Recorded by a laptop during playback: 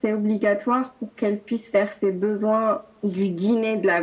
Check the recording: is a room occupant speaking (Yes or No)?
No